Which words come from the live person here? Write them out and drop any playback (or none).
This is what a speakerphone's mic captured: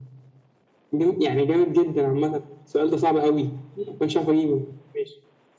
none